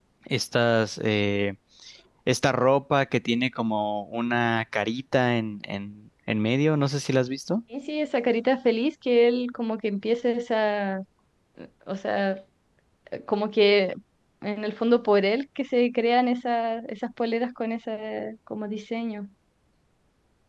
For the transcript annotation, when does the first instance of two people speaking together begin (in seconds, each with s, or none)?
none